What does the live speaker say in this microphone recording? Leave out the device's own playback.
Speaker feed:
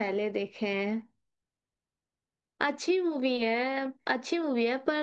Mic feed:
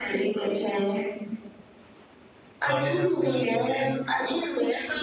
नॉलेज हमसे उनको मिल

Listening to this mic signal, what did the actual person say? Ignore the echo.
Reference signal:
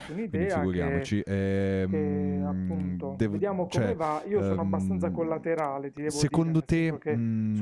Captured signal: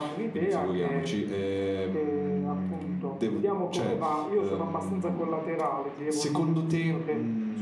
none

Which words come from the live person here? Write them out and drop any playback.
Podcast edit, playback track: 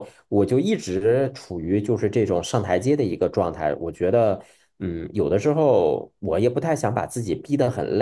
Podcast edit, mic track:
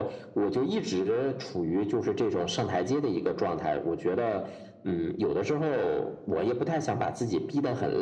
none

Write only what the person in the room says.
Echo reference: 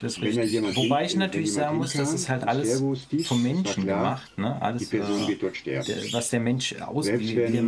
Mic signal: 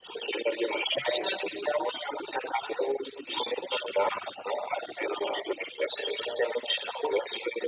none

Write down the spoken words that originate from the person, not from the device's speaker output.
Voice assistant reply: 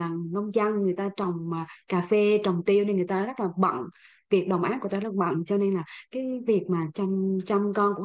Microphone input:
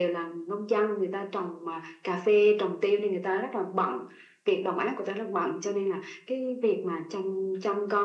none

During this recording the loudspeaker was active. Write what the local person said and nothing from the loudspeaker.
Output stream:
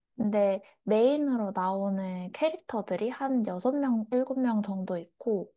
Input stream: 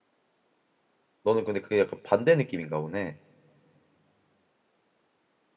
너는 근데 그게 약간 반대 느낌인가 보네.

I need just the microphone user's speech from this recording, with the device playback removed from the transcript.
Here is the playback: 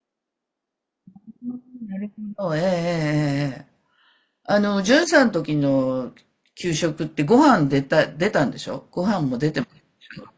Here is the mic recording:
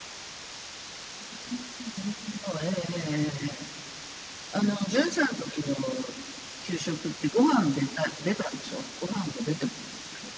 none

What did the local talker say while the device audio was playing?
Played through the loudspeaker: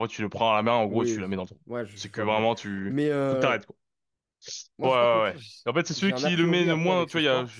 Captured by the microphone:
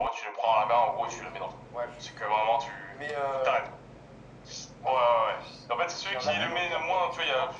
Ouais.

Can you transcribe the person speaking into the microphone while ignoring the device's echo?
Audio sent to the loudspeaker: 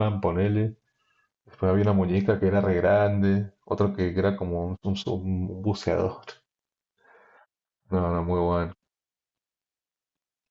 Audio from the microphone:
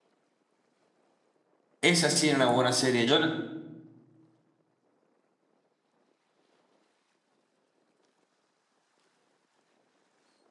esa sí era una buena serie. Yo, la-

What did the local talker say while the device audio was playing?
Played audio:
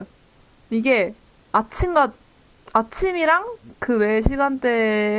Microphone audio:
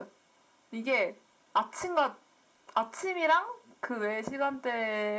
none

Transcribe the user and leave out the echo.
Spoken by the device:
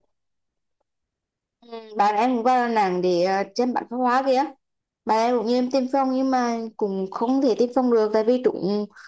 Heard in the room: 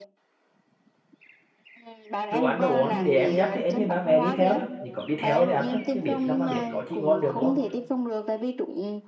đồ ăn đồ uống để em dắt thì em với ba mẹ đi theo thôi chỉ có đi theo thì ăn thôi chứ biết làm mà biết có chi ngon được đúng không

